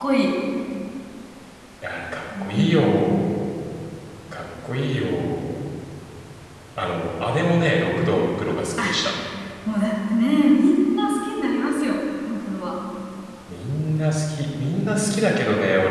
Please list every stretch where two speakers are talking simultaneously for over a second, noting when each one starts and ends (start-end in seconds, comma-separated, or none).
none